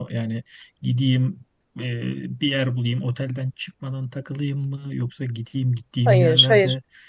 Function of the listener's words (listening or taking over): listening